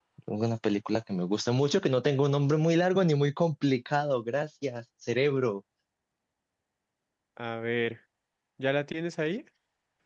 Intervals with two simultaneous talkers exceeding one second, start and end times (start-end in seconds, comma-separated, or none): none